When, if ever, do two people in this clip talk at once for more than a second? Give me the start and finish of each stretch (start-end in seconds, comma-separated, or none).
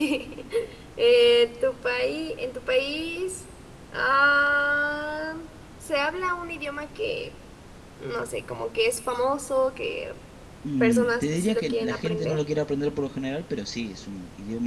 10.8-12.4